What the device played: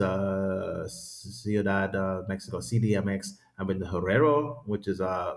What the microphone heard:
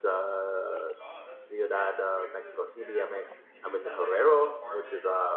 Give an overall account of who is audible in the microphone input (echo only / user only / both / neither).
both